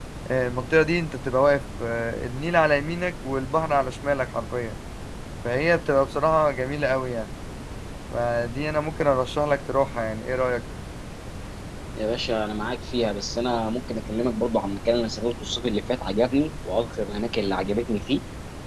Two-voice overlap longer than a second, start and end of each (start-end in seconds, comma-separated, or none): none